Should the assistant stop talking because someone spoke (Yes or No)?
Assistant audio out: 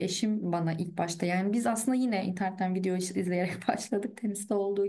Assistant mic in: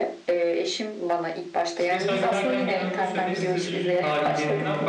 Yes